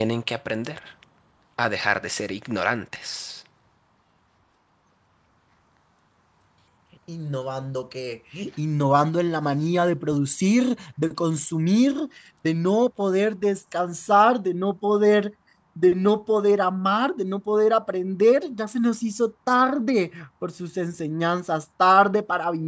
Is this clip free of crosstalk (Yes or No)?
Yes